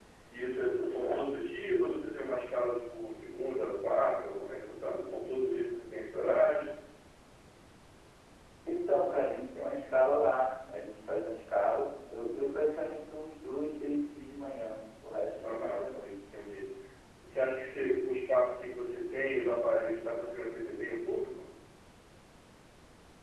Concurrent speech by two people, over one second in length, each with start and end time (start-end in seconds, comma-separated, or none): none